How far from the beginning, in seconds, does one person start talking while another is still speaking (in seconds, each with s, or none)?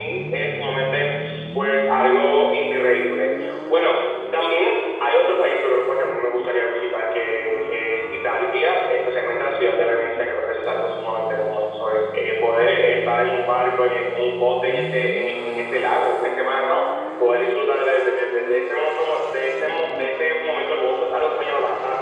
none